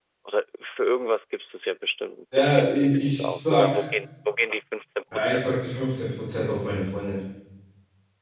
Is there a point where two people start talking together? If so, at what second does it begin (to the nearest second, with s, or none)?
2 s